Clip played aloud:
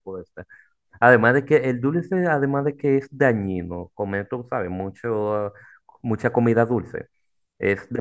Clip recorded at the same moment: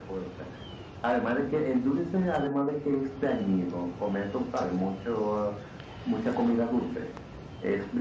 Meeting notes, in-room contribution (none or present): none